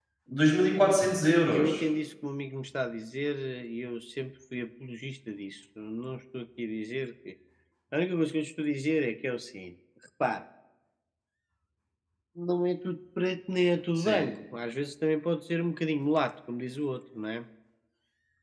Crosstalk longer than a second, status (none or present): none